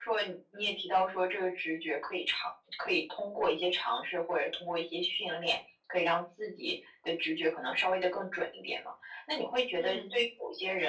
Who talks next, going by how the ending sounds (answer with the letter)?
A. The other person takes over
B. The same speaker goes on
B